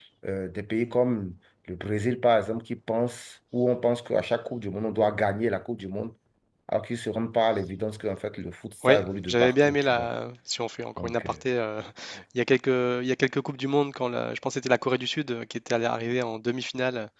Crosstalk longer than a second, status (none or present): present